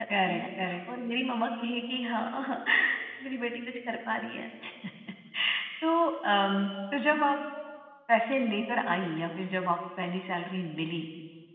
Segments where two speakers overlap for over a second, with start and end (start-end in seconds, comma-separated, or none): none